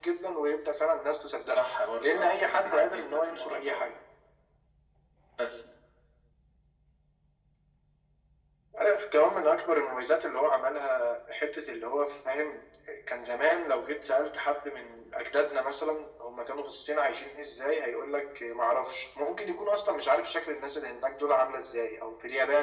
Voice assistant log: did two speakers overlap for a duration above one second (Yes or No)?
Yes